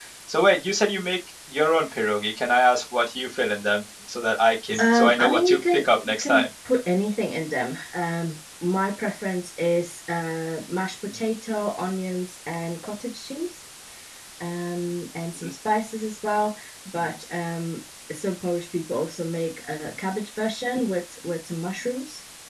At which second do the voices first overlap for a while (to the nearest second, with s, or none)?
5 s